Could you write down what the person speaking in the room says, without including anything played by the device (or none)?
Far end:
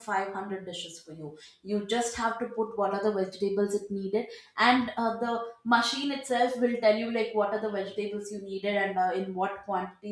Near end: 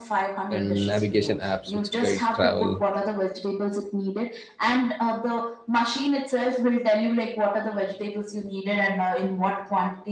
and navigation apps which guide travel